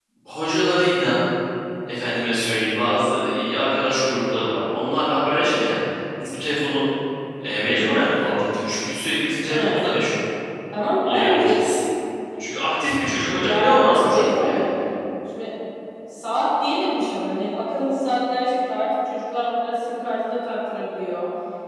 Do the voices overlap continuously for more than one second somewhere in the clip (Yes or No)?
Yes